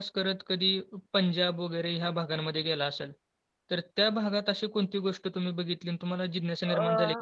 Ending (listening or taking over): listening